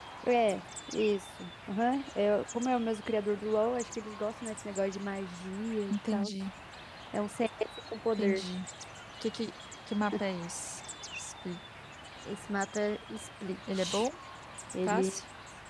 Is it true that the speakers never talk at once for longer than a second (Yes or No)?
Yes